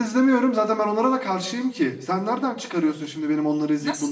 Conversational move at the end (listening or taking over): taking over